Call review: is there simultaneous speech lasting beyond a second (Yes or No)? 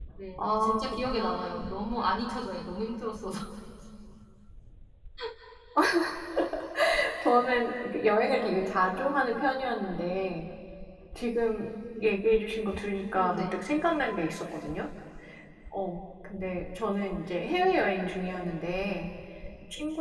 Yes